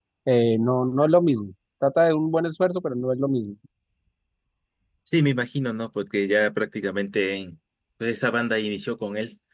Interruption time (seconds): none

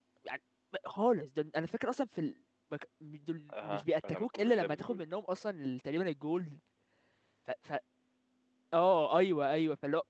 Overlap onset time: 3.5 s

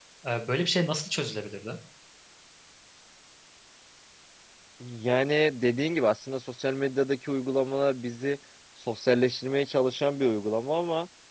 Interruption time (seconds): none

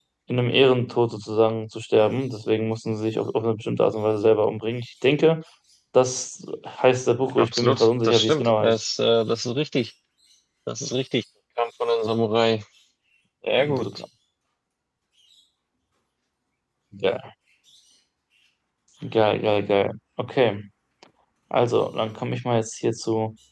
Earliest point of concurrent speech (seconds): 7.4 s

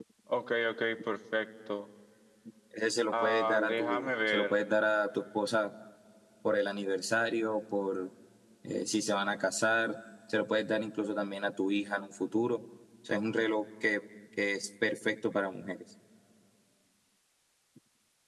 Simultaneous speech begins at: 3.1 s

